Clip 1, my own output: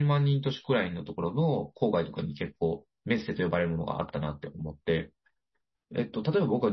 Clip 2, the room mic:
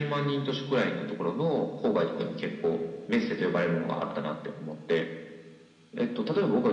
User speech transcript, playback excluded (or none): none